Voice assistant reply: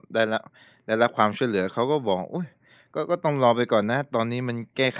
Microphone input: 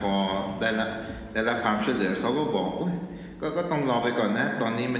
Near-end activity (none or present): none